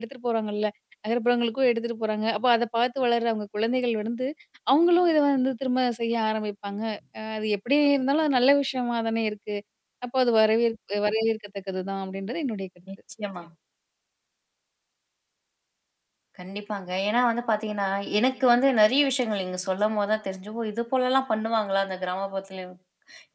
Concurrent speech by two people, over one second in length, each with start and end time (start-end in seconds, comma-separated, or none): none